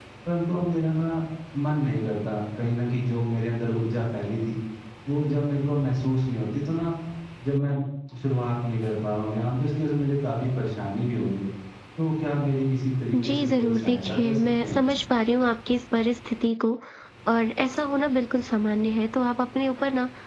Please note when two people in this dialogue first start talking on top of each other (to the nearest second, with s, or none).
13 s